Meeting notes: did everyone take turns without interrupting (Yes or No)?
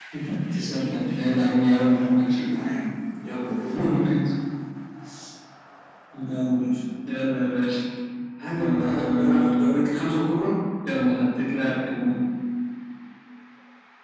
No